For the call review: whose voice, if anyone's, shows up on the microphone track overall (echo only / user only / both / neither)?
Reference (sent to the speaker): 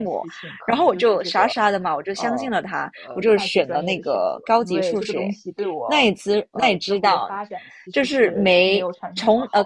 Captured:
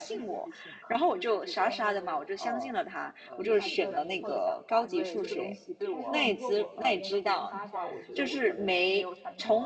both